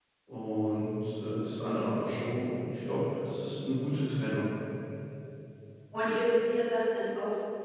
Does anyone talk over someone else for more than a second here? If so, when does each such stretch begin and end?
none

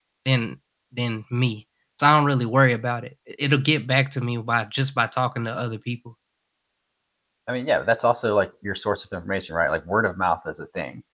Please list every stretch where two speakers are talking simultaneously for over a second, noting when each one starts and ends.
none

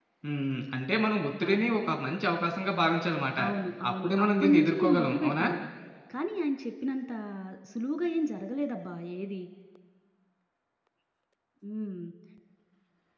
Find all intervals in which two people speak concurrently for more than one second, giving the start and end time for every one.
3.9-5.5

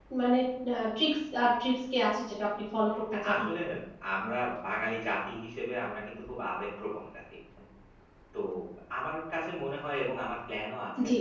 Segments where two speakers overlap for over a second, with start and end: none

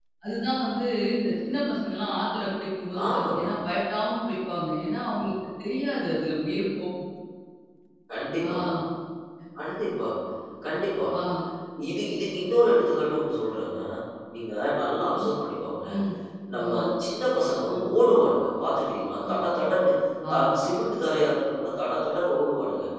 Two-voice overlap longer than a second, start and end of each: none

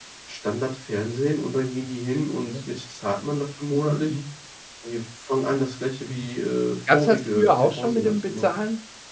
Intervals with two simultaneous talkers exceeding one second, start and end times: 6.9-8.4

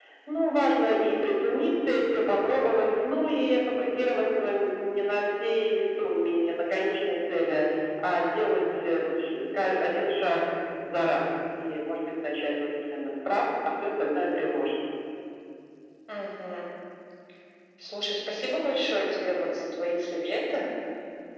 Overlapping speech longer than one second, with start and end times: none

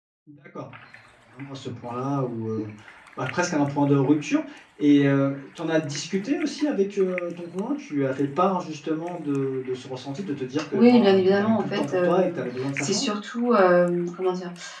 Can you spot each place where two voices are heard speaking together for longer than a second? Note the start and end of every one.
10.7-12.4

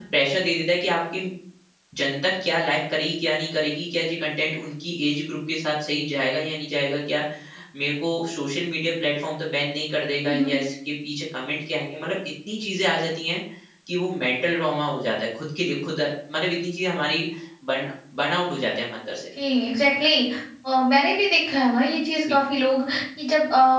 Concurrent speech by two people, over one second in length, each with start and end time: none

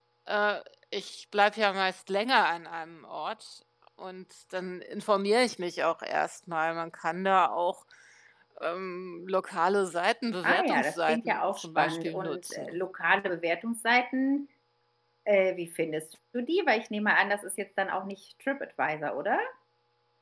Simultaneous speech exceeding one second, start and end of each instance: 10.4-12.8

